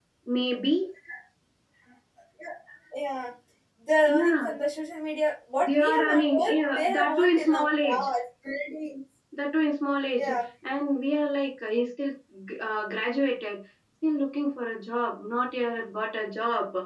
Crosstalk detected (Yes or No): Yes